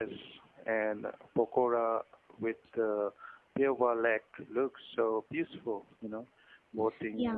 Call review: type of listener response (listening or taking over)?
listening